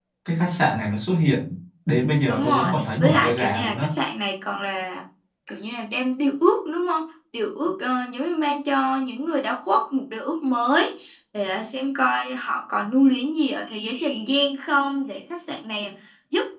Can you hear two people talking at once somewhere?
Yes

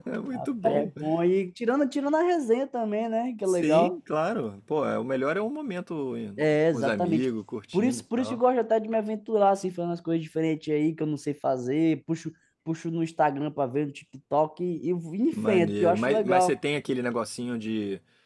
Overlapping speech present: Yes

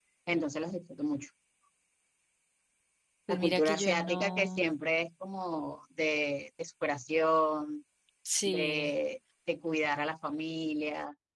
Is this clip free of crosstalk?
No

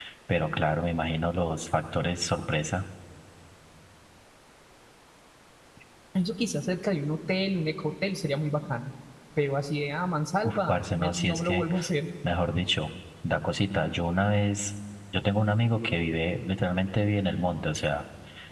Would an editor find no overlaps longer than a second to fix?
No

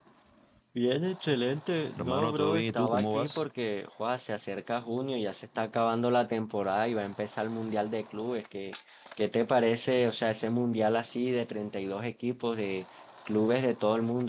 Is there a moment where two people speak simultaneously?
Yes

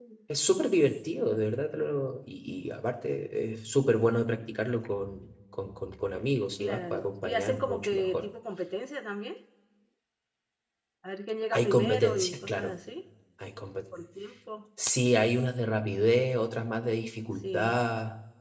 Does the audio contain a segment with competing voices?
Yes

